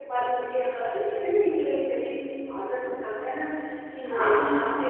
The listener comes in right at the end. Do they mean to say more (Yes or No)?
No